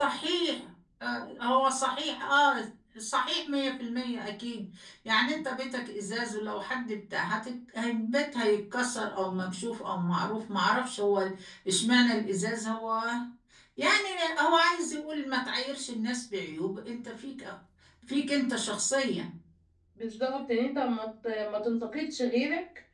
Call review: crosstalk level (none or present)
none